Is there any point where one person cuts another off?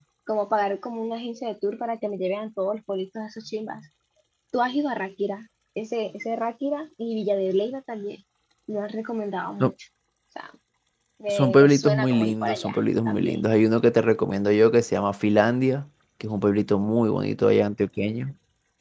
Yes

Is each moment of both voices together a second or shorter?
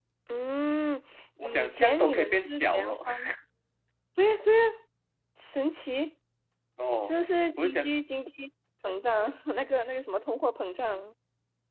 No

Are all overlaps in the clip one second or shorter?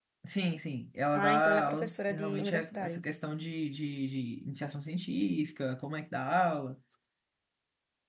No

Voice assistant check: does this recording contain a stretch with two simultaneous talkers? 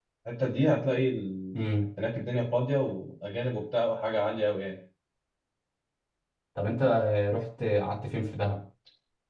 No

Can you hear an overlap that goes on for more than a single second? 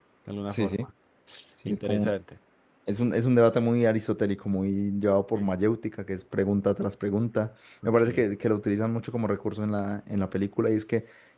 No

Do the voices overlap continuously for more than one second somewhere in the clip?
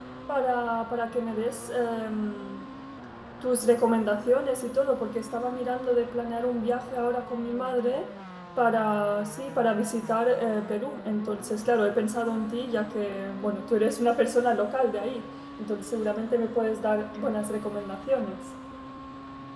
No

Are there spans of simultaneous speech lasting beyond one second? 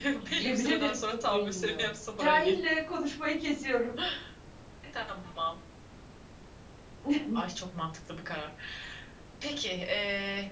Yes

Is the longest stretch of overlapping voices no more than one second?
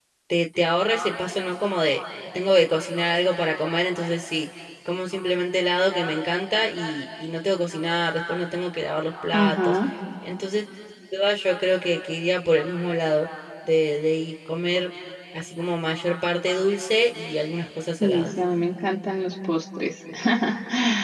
Yes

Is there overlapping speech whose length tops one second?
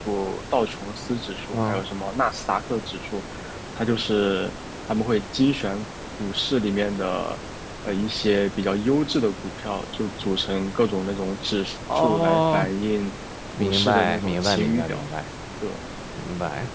Yes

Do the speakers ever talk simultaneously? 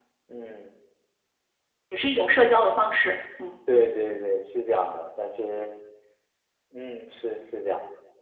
No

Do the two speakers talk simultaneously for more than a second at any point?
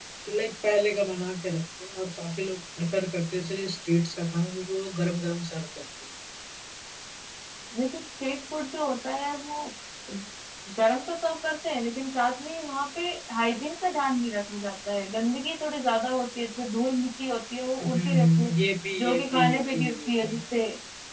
Yes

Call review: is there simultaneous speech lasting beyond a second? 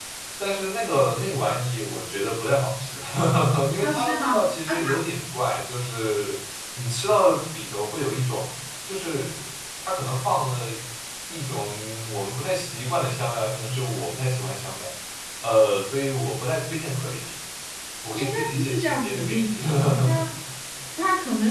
Yes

